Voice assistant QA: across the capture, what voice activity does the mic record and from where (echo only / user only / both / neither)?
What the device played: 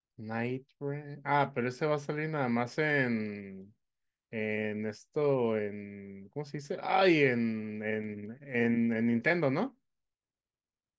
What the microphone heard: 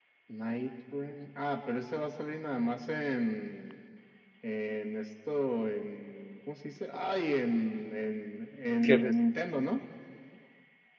both